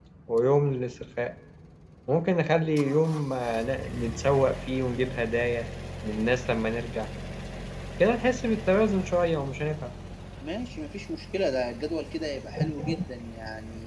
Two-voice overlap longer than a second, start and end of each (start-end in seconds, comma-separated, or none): none